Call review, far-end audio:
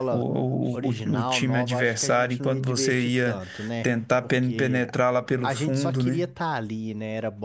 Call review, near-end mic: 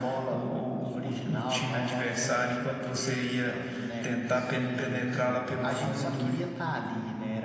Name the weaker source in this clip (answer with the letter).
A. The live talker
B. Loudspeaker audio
A